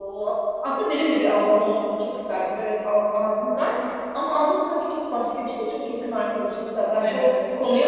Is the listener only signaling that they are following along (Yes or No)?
Yes